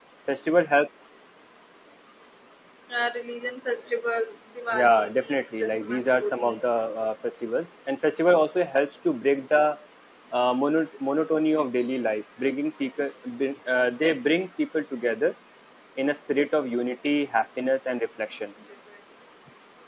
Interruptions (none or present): present